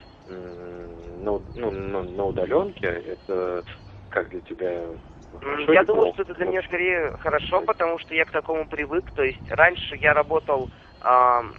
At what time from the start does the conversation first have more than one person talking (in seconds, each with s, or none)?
5.4 s